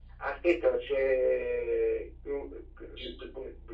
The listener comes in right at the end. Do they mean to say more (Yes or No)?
Yes